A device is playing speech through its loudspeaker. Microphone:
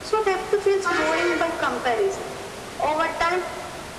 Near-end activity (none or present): none